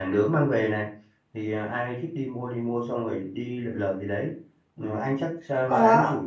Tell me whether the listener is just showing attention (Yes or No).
Yes